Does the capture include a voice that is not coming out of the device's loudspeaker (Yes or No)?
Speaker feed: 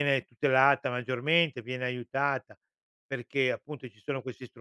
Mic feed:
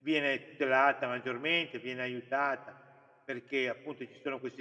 No